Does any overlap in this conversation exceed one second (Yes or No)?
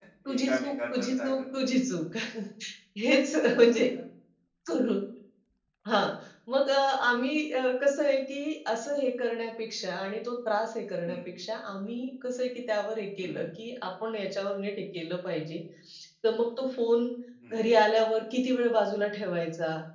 Yes